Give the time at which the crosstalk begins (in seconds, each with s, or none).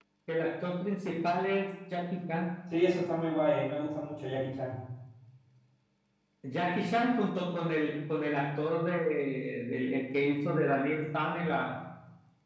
none